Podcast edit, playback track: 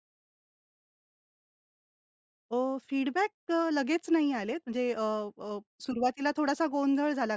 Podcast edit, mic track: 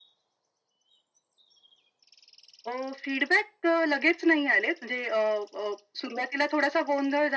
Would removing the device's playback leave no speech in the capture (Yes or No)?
Yes